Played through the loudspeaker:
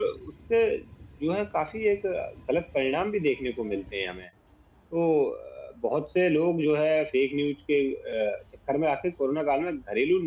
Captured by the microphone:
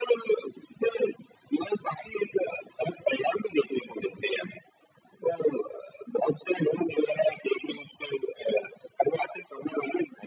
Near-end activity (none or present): none